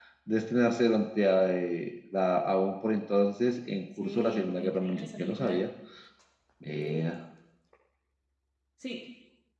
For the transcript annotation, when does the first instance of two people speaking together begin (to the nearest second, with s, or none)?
4 s